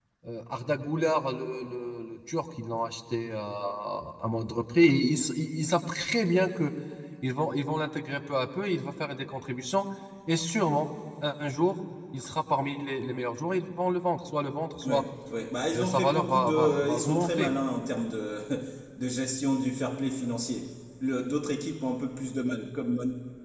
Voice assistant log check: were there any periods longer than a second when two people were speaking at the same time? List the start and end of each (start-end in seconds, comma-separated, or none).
15.7-17.5